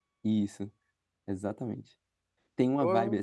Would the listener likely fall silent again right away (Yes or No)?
Yes